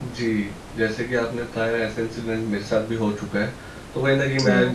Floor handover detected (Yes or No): No